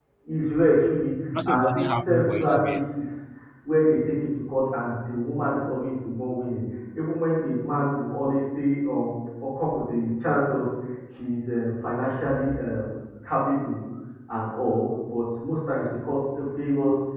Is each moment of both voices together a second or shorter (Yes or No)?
No